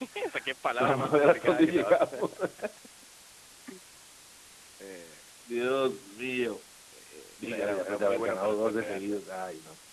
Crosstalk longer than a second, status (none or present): present